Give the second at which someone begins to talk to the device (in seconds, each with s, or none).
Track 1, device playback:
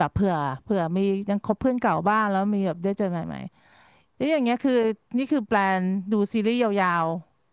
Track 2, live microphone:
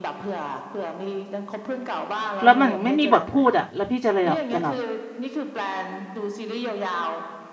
2.4 s